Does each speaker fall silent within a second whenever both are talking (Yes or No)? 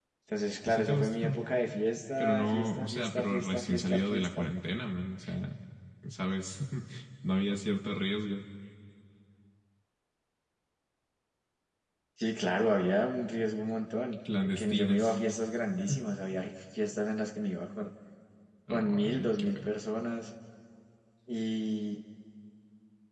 No